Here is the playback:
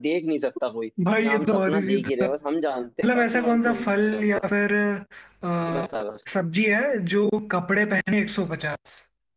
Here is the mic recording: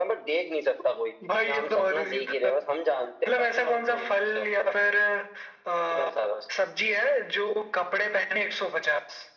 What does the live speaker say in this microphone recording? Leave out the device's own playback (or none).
none